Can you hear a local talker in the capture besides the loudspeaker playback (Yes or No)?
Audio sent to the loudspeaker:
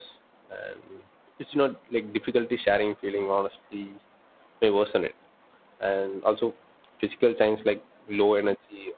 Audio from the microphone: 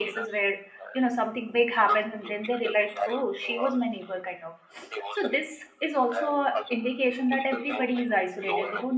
Yes